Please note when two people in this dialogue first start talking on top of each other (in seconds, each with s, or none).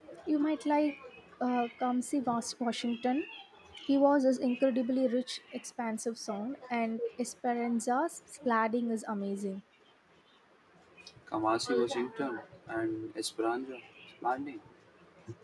none